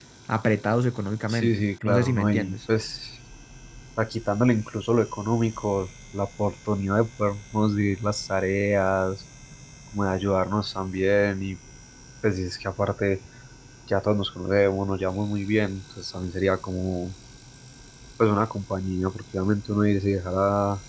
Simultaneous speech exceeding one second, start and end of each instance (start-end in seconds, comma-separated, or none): 1.3-2.6